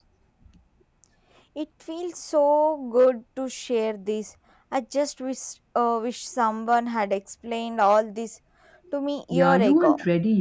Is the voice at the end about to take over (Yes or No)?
Yes